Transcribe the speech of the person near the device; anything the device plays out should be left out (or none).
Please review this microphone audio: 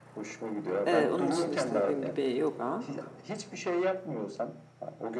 Ee, onun dışında işte dediğim gibi yoga